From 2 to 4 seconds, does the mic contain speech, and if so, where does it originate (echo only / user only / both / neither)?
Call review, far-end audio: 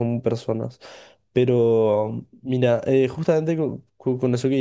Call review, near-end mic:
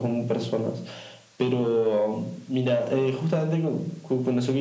echo only